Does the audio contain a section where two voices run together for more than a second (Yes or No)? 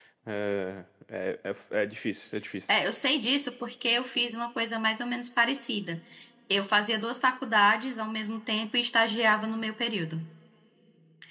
No